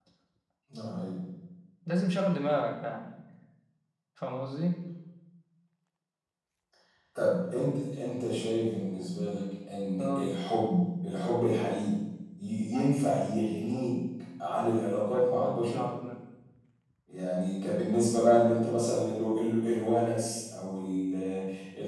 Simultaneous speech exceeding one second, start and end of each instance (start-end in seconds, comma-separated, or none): none